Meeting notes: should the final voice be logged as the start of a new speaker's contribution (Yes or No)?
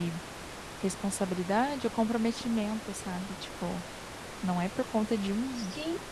No